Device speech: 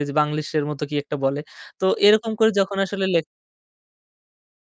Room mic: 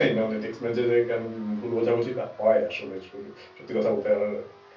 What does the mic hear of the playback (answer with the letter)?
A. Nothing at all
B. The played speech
A